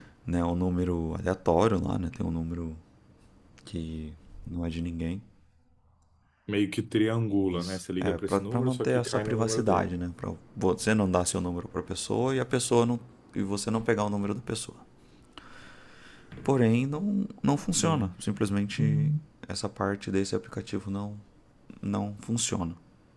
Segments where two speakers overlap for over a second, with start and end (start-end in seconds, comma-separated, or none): 7.5-10.0